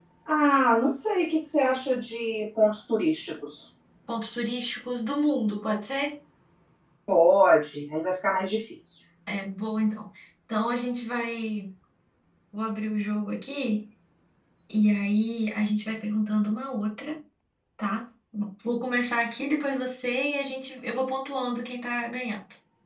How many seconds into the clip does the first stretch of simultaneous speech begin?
none

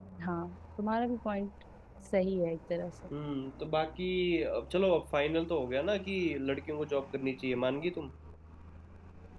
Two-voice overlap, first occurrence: none

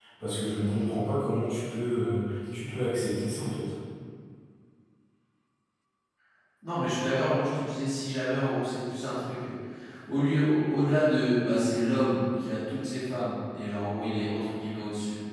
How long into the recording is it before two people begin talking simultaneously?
none

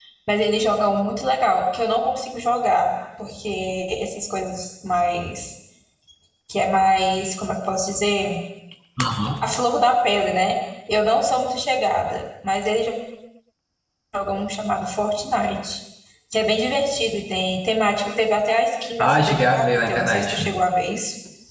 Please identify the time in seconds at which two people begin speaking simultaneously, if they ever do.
19 s

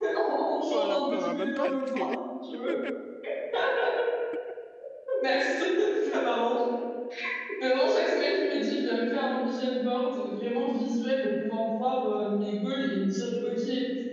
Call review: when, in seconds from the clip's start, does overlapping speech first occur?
1 s

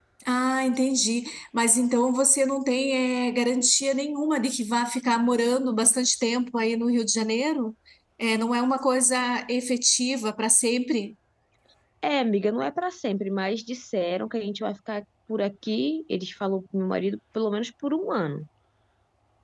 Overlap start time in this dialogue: none

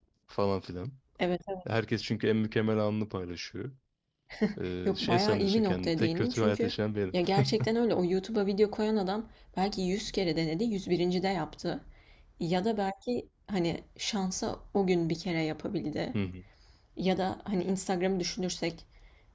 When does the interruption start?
5 s

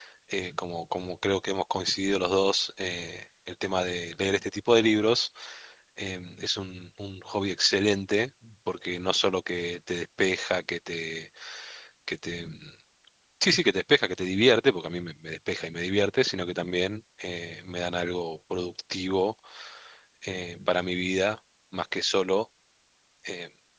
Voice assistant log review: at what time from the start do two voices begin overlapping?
none

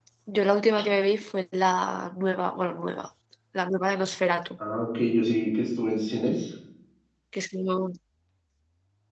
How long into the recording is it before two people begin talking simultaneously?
none

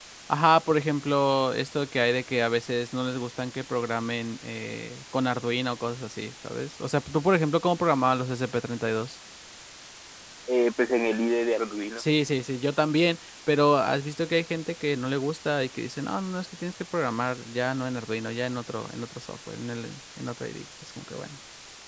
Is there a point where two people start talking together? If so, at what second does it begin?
none

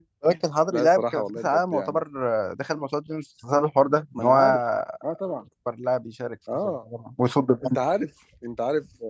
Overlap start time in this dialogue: 1 s

